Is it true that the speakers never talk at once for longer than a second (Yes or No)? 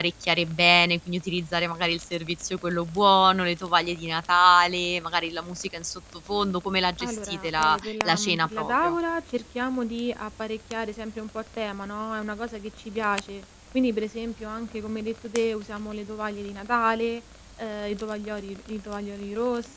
No